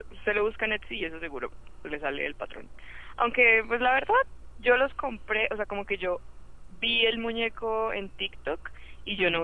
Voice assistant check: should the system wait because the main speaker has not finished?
Yes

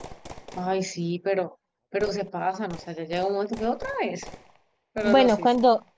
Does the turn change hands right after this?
Yes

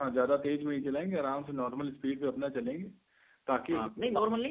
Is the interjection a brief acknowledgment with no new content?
No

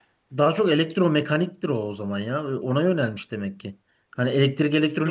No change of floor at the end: No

